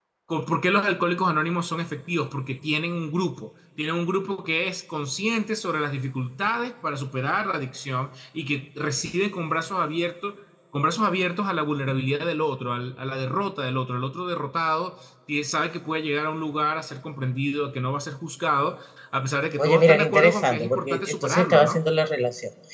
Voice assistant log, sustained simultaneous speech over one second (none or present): present